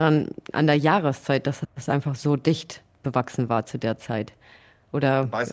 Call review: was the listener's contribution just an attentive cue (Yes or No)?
No